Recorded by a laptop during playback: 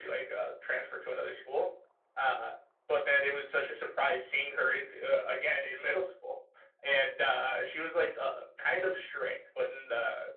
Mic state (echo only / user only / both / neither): echo only